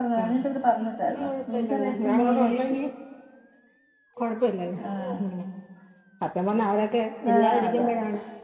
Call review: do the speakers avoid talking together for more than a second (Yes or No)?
No